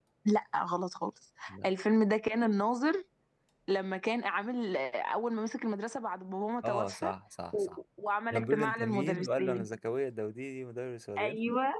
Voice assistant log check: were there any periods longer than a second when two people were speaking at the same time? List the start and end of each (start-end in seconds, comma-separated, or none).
8.3-9.7